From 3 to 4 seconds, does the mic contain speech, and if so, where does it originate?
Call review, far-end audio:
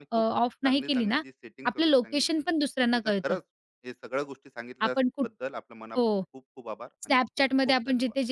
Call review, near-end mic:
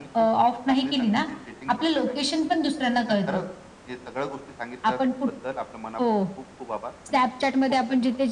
echo only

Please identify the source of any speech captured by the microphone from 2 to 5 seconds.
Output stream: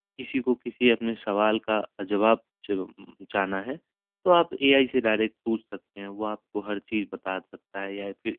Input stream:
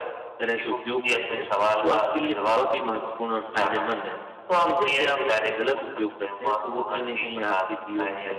both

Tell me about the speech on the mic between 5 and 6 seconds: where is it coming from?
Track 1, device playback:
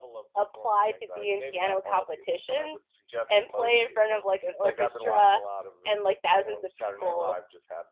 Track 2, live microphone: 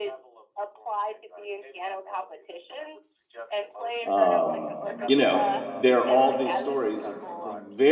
both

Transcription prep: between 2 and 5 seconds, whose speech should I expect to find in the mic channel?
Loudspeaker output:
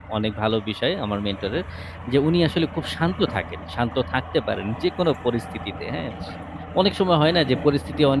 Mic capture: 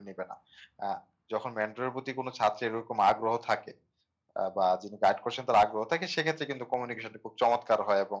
user only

